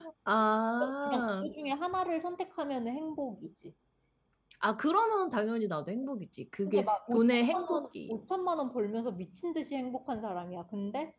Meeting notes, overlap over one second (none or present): present